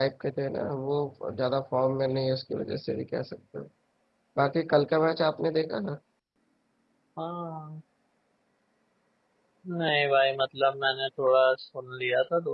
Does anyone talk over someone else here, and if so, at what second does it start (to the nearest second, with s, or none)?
none